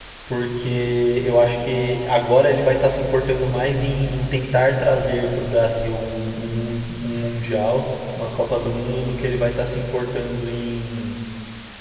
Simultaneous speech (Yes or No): No